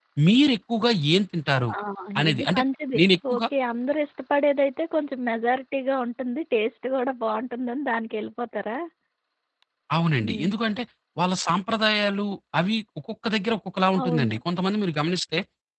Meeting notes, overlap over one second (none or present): none